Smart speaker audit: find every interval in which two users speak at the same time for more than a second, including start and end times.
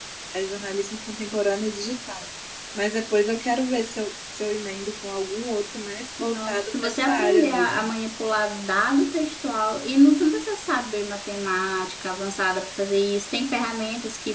6.2-8.0

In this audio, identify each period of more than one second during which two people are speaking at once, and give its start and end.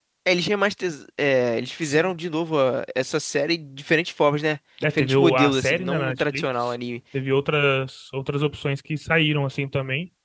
4.9-6.7

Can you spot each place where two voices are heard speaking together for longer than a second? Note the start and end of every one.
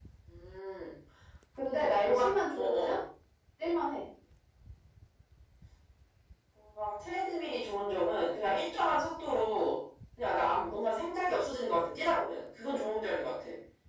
1.7-3.0

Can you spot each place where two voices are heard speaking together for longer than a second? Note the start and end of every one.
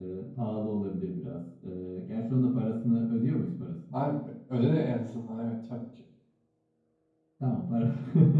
none

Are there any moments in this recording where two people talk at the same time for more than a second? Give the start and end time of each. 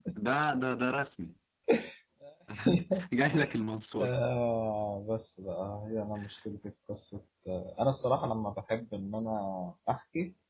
none

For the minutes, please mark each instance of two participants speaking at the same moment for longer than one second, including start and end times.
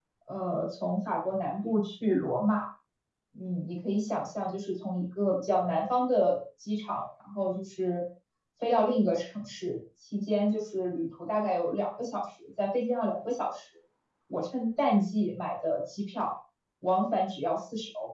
none

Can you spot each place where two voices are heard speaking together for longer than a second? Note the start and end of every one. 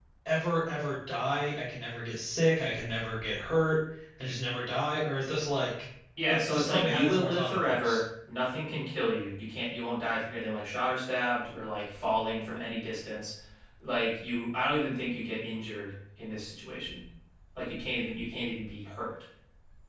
6.3-8.0

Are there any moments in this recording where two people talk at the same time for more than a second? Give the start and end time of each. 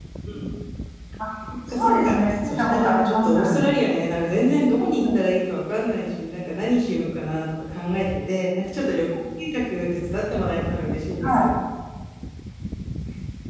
1.7-3.6

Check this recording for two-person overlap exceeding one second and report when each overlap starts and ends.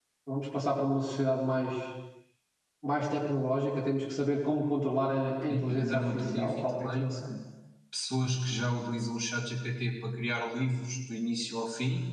5.5-7.1

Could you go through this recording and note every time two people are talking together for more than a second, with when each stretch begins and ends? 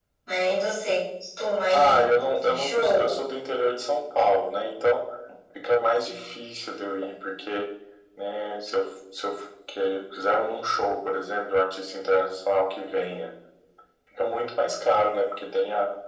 1.7-3.2

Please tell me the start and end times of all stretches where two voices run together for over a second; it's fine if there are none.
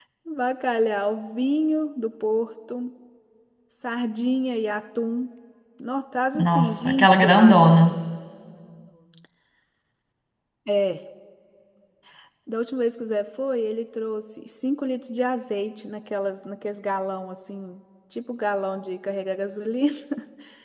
6.4-7.7

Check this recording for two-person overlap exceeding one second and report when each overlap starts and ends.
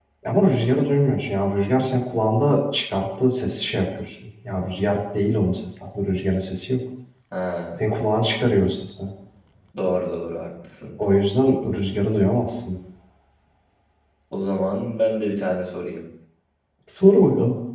none

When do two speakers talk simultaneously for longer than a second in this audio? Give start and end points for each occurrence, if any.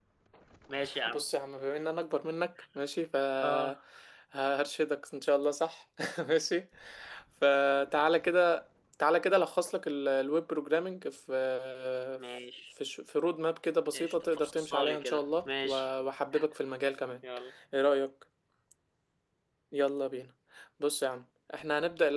13.9-15.9

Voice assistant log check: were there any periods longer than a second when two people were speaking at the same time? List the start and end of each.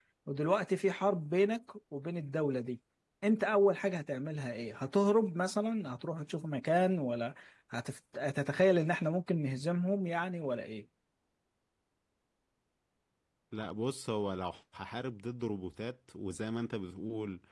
none

